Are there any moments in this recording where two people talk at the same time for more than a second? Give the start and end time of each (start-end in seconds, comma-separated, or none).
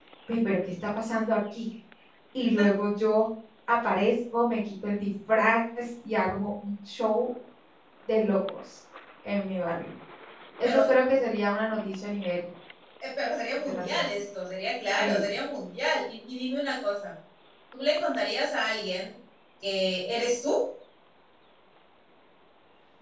none